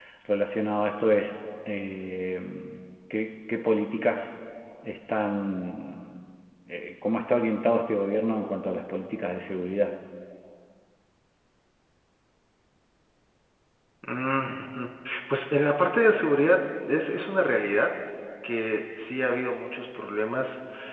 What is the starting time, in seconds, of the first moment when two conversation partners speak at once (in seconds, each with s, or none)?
none